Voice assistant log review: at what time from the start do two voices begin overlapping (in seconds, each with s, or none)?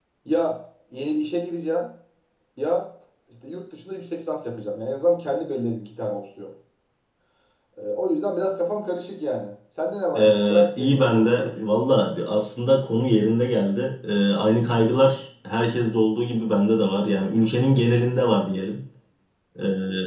10.2 s